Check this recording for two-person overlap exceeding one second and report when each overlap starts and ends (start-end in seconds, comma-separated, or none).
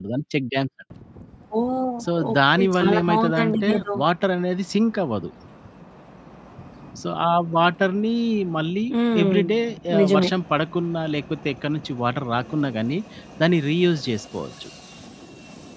2.0-4.0